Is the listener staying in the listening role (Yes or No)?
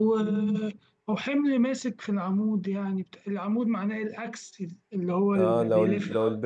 No